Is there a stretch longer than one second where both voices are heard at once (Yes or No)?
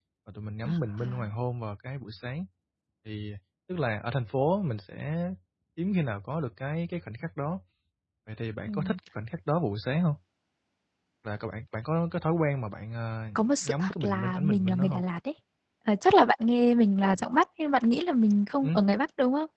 Yes